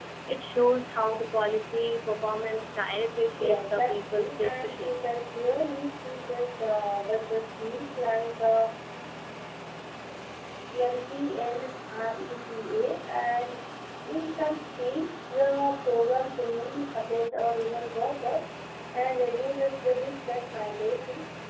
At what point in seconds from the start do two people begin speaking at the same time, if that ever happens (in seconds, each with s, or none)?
3.4 s